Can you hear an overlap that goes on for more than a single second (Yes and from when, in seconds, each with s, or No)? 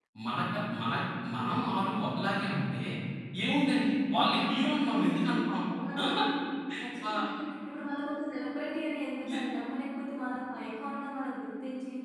No